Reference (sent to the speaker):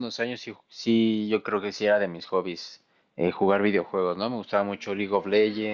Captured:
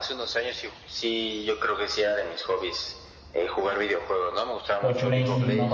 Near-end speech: present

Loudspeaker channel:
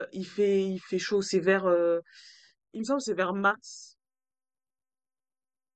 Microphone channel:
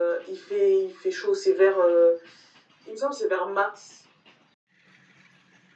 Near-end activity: none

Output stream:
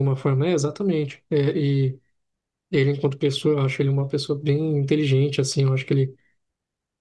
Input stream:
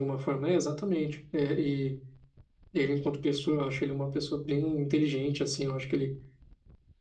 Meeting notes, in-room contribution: none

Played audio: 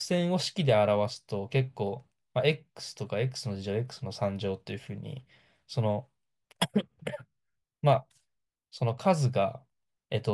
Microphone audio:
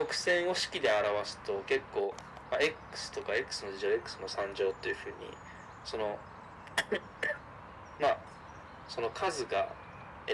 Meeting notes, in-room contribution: none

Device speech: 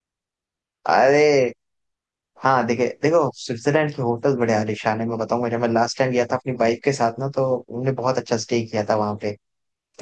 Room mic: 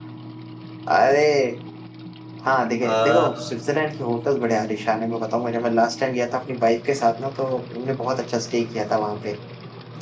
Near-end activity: present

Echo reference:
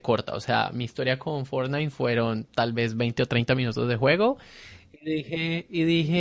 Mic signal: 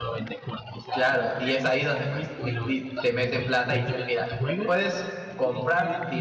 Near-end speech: present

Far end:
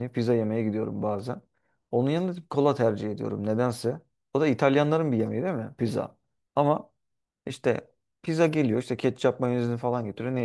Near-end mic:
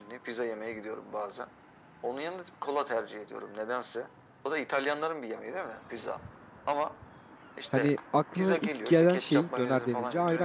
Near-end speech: present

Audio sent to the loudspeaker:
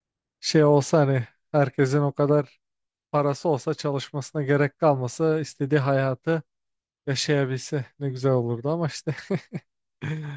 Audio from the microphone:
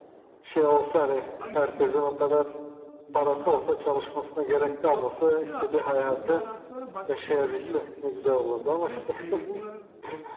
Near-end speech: present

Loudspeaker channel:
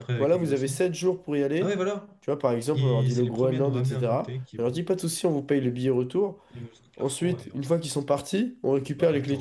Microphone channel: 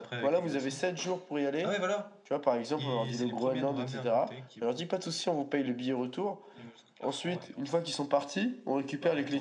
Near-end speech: none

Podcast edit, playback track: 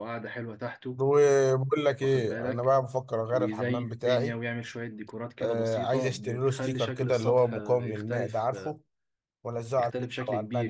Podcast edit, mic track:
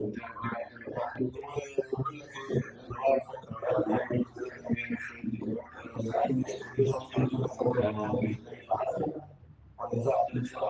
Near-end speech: present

